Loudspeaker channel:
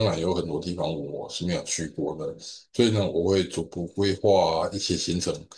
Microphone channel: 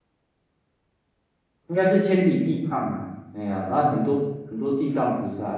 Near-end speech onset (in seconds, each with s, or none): 1.7 s